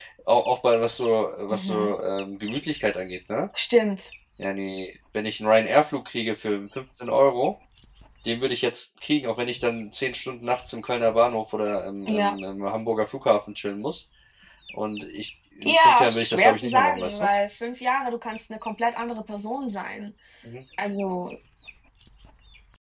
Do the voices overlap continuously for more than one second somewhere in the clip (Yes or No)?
Yes